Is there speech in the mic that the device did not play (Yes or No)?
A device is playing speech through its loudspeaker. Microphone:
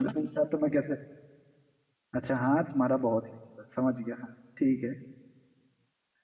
Yes